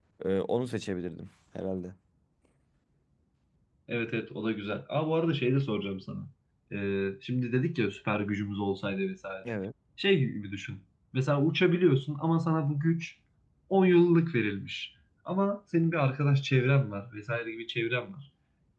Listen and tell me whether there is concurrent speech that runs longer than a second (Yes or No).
No